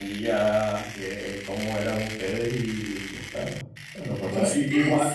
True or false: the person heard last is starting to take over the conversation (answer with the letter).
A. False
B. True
A